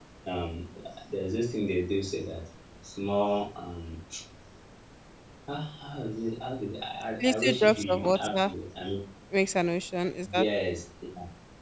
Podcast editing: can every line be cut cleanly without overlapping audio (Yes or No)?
No